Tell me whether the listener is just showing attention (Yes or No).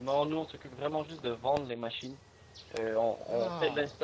Yes